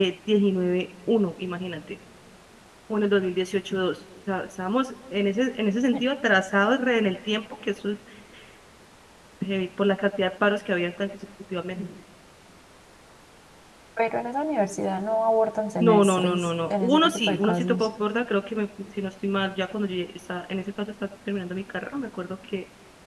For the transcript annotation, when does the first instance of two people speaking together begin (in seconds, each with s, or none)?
15.8 s